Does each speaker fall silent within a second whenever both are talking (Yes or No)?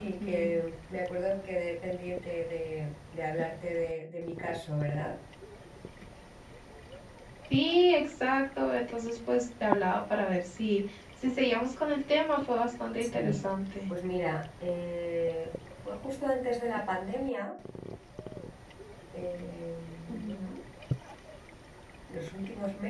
Yes